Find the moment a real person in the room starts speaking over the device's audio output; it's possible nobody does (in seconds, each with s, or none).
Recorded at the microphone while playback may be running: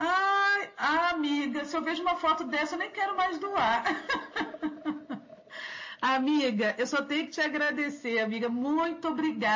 none